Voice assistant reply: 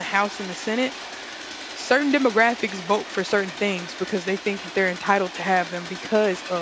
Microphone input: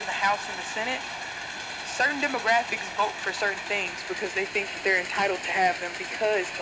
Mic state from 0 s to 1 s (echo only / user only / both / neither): echo only